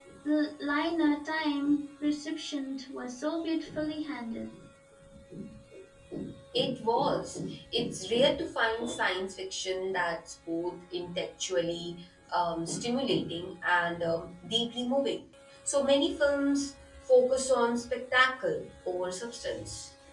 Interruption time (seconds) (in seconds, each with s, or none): none